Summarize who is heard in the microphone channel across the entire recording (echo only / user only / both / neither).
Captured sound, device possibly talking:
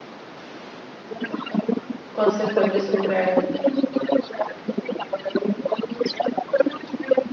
both